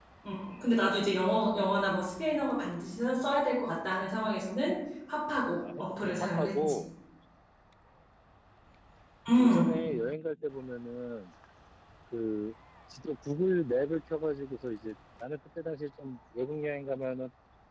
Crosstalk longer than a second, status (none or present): present